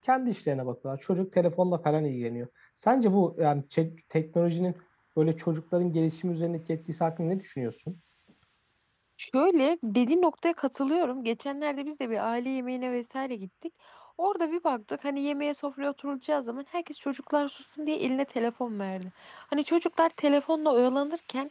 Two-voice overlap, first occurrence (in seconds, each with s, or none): none